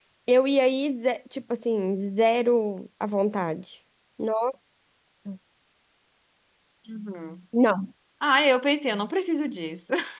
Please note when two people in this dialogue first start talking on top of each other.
none

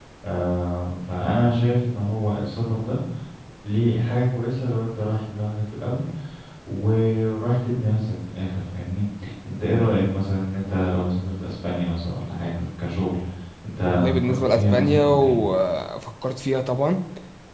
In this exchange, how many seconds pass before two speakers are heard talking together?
13.9 s

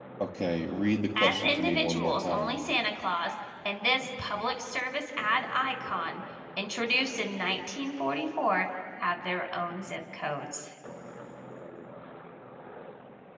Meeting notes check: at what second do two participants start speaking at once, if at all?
1.2 s

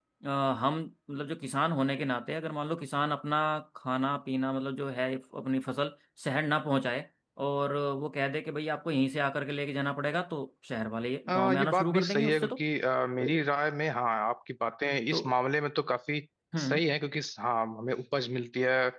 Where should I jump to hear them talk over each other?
11.3 s

